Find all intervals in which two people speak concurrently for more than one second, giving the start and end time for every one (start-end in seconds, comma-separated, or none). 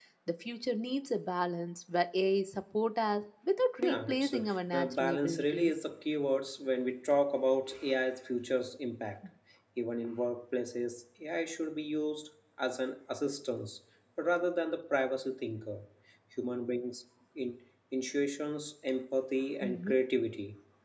3.9-5.7